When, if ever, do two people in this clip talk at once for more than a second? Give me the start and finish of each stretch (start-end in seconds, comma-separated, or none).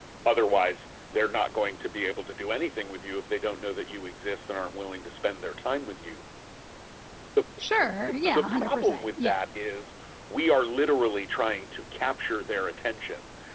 8.0-9.4